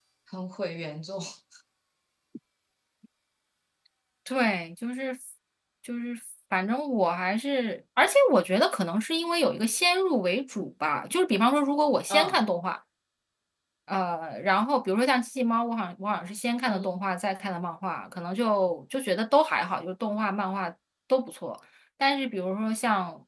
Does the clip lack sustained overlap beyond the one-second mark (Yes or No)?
Yes